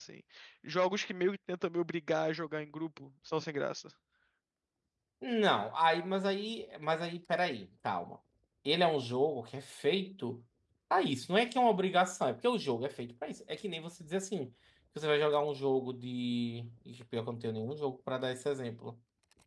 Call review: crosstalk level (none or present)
none